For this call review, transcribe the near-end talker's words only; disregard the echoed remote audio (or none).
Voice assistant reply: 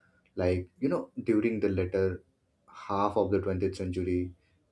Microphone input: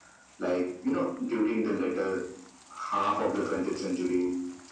none